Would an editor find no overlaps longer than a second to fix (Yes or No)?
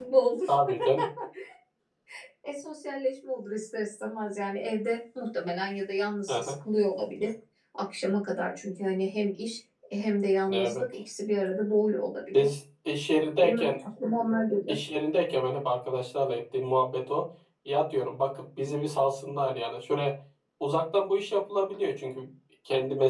Yes